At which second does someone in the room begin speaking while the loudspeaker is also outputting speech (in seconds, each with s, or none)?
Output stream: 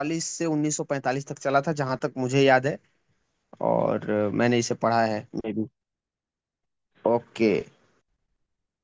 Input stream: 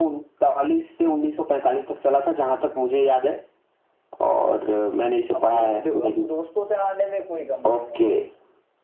5.4 s